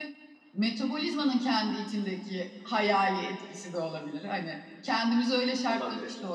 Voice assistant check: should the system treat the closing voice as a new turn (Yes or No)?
No